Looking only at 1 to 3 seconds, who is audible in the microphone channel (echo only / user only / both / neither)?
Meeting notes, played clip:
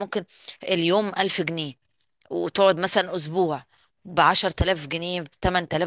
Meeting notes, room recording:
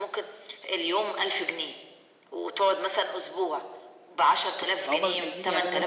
echo only